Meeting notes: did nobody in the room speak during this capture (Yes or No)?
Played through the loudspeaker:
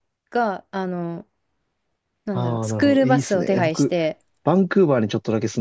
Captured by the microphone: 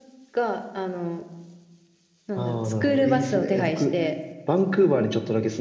Yes